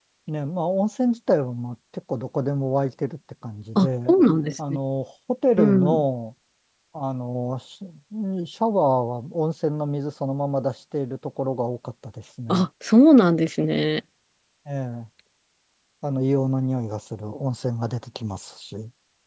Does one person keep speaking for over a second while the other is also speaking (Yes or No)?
No